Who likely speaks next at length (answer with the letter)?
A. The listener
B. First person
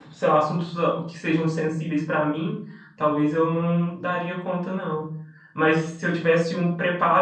B